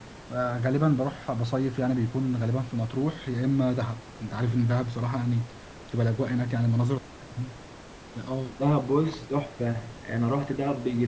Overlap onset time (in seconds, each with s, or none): none